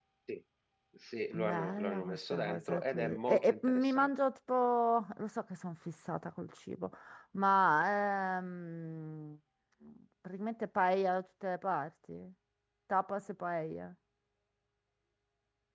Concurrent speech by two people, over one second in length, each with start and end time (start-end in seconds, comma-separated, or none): 1.3-4.1